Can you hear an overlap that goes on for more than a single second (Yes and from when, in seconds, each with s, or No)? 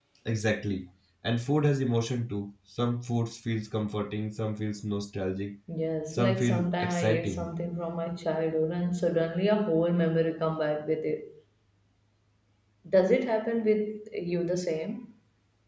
Yes, from 6.1 s